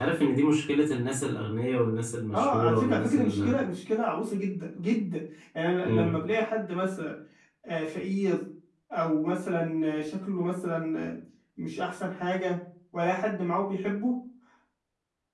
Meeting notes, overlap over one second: present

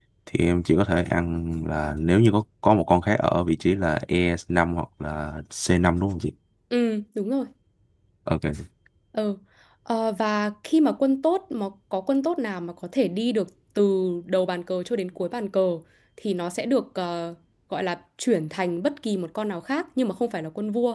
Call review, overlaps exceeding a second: none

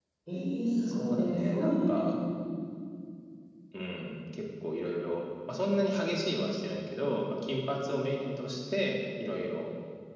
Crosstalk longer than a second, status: present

